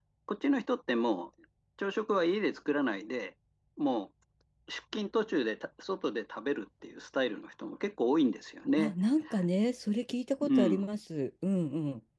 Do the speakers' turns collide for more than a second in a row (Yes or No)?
No